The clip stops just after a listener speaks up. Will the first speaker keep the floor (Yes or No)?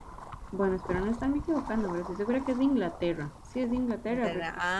No